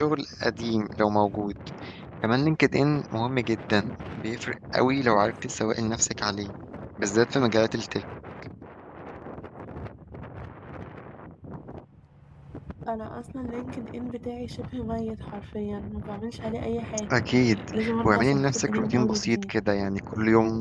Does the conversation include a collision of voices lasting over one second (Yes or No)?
Yes